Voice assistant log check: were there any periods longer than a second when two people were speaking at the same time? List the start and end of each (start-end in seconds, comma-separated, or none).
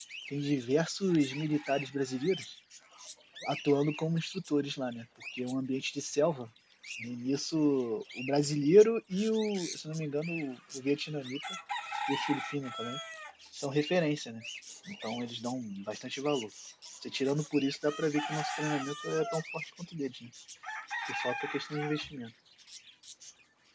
none